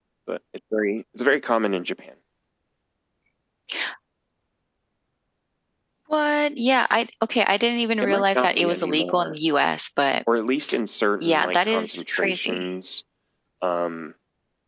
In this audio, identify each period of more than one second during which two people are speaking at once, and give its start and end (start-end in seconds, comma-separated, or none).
8.0-9.4, 11.2-12.7